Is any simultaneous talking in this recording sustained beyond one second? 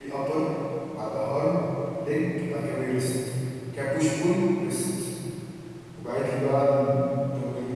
No

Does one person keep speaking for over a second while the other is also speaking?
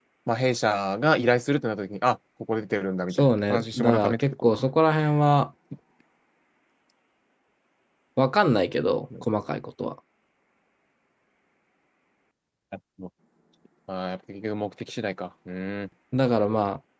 Yes, from 3.1 s

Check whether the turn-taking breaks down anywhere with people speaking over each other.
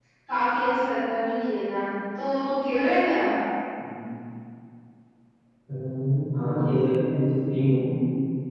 No

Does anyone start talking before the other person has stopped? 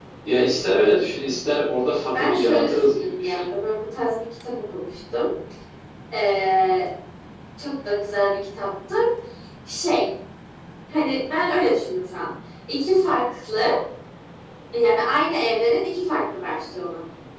Yes, from 2.1 s

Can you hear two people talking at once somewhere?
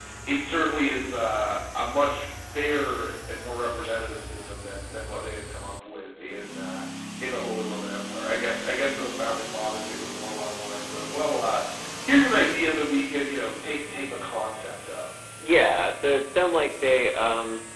No

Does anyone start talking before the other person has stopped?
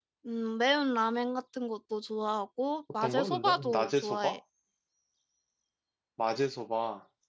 Yes, from 3.0 s

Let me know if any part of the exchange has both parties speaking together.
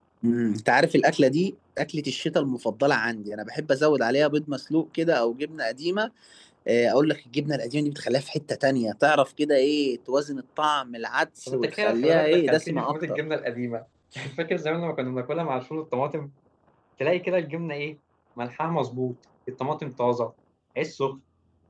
Yes, from 11.5 s

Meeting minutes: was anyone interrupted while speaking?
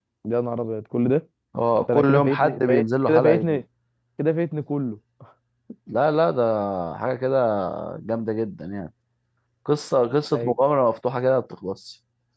Yes, from 1.8 s

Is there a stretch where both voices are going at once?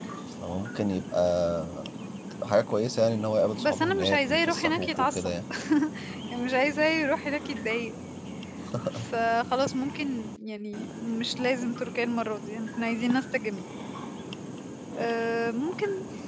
Yes, from 3.6 s

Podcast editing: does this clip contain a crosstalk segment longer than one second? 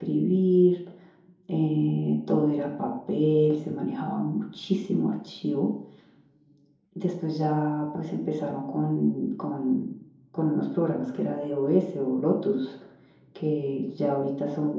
No

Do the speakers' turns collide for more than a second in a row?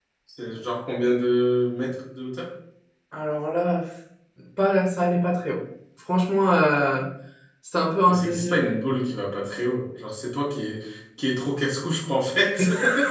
No

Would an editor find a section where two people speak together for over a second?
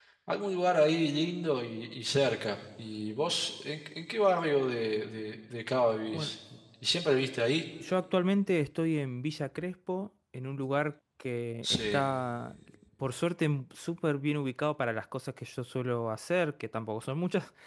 No

